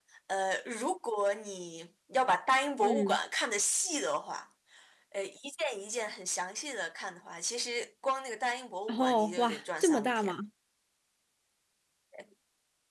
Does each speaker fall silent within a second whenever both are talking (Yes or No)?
No